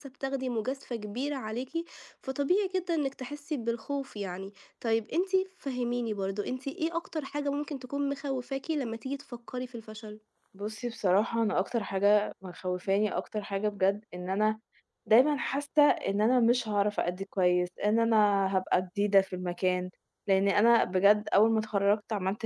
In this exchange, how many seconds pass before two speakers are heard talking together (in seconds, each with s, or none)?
none